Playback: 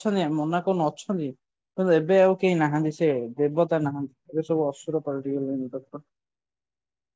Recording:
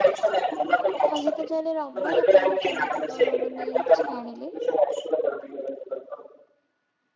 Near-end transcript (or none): ଆଜି ତ ଯାହେଲେ ରବ ମାନେ ଆପଣଙ୍କ କେମତି କଣ ମାନେ ଛାଡ଼ିଲେ?